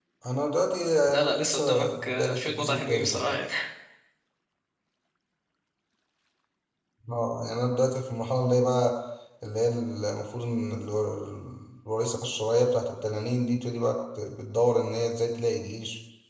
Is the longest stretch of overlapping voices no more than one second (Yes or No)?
No